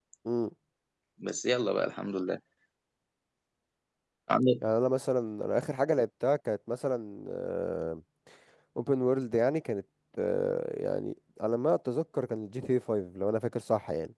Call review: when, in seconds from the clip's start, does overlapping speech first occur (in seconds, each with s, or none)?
none